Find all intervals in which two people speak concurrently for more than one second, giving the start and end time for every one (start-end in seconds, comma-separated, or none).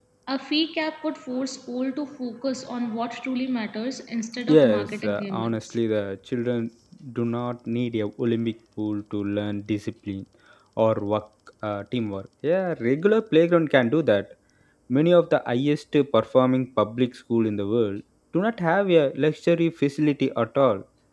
4.5-5.8